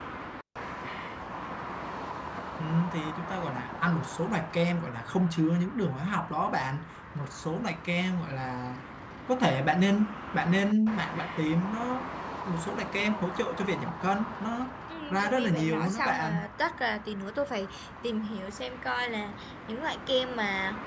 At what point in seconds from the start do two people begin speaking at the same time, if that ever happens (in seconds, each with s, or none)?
14.9 s